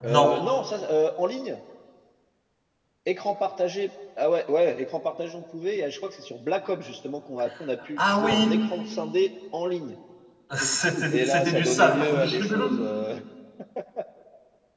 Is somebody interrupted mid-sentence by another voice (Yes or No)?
Yes